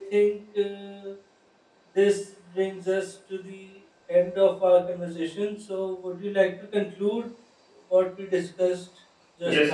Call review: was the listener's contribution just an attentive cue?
No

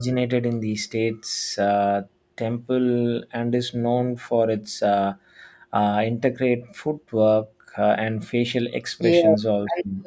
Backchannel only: No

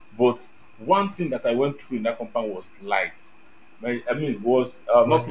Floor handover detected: No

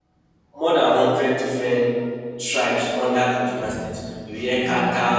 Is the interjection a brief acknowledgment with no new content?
Yes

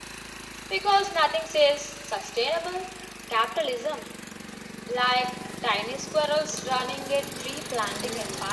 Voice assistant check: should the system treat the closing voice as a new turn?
Yes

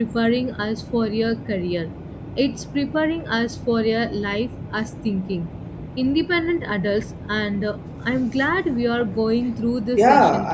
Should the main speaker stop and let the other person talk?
Yes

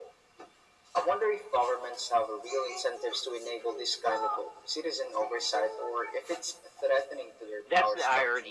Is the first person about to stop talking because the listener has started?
Yes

